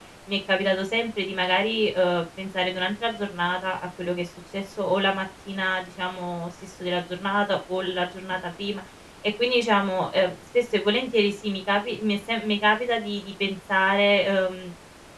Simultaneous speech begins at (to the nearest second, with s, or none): none